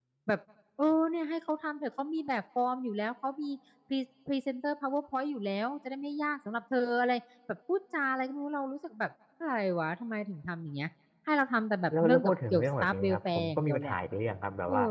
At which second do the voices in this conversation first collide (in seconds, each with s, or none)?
11.9 s